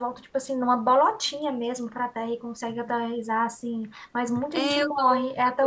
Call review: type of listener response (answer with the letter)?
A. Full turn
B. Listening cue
A